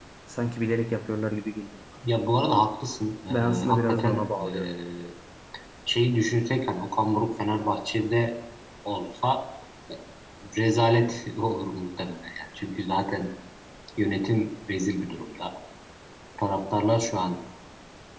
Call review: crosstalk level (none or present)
present